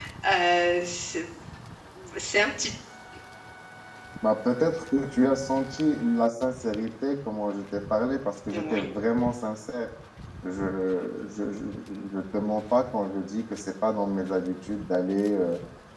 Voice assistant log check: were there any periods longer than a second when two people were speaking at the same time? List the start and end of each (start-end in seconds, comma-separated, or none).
none